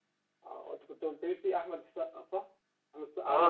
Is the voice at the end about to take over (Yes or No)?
Yes